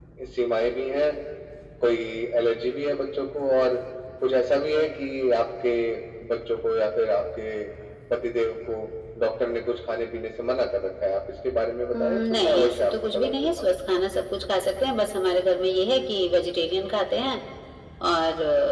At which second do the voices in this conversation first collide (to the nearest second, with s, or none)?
12 s